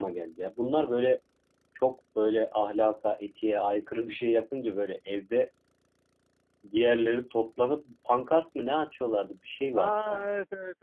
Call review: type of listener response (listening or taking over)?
taking over